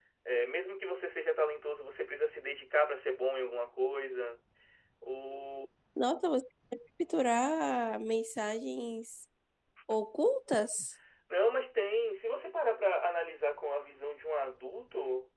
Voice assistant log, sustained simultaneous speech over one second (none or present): none